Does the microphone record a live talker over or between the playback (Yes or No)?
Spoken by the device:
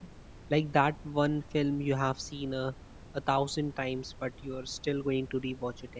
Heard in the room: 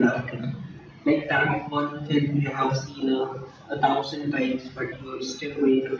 No